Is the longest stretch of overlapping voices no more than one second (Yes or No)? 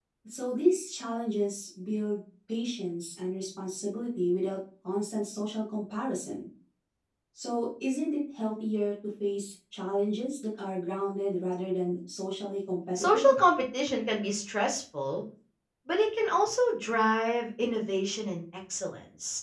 Yes